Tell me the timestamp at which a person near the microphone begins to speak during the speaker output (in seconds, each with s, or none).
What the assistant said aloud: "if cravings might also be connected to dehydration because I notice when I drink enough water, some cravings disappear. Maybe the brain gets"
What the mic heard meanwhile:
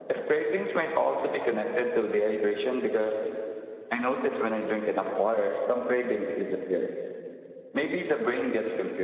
none